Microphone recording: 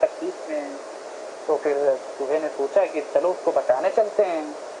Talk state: echo only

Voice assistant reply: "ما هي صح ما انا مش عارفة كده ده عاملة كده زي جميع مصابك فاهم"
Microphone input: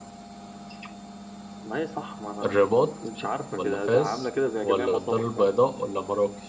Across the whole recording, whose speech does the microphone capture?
both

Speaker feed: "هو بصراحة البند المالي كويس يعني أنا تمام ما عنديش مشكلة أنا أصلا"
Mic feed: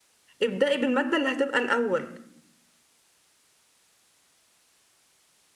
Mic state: user only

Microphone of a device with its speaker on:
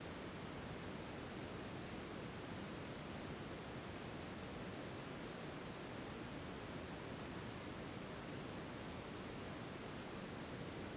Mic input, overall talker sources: neither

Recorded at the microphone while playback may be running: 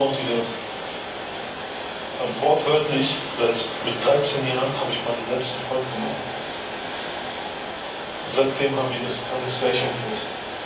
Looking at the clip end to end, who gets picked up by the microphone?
echo only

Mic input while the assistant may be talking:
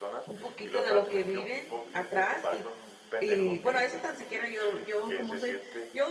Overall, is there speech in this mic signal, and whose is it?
both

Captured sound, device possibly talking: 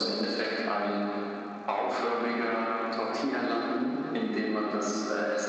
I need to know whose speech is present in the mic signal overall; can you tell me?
echo only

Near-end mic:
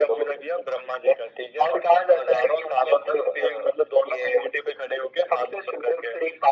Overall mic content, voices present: echo only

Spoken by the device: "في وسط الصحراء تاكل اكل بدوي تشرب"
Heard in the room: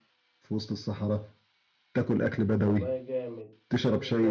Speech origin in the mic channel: both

